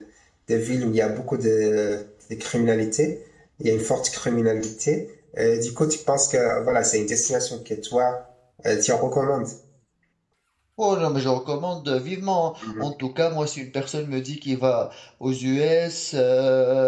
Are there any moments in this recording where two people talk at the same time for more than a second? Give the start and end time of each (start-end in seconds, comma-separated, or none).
none